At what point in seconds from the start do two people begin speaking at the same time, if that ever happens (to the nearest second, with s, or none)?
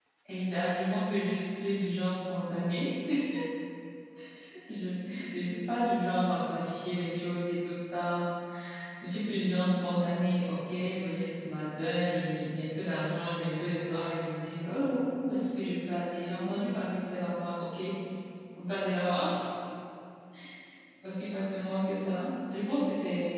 none